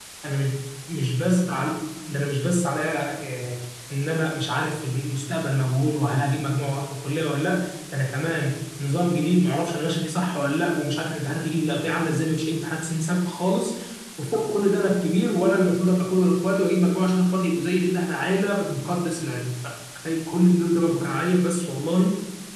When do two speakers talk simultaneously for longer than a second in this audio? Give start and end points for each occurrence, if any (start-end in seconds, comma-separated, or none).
none